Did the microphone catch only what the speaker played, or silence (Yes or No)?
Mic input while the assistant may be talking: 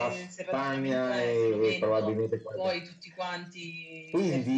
Yes